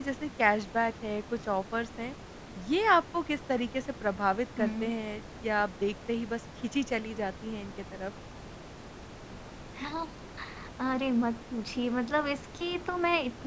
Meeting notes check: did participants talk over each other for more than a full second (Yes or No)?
No